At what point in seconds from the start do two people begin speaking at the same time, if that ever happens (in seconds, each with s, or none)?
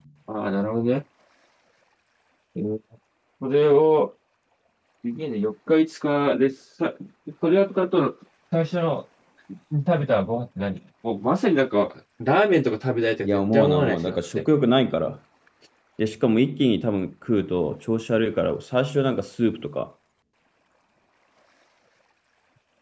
13.2 s